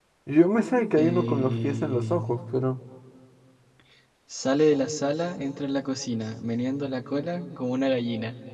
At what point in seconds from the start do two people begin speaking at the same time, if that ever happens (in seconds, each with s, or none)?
0.9 s